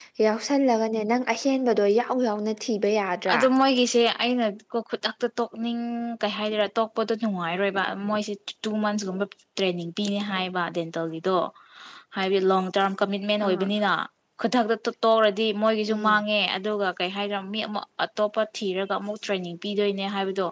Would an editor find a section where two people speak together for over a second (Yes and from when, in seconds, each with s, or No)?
No